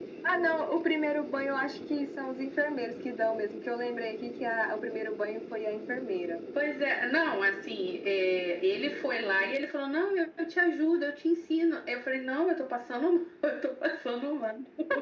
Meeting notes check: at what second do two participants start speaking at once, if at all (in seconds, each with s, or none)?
none